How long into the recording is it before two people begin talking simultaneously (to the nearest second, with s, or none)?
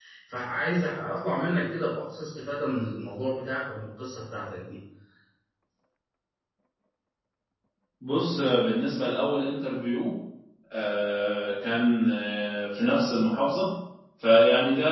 none